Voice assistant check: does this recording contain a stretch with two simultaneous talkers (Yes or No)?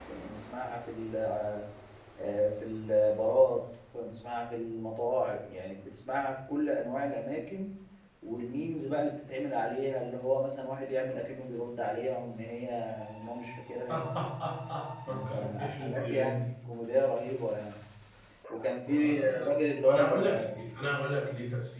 Yes